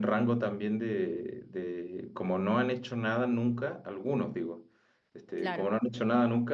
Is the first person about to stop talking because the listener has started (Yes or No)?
No